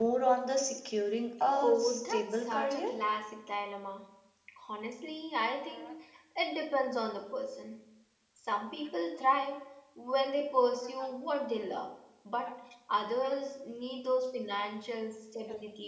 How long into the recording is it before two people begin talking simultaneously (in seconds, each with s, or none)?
1.6 s